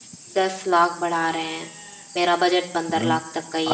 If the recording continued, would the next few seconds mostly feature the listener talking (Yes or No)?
Yes